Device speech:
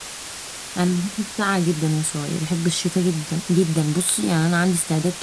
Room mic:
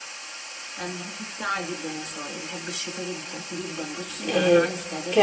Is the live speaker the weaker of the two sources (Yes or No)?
No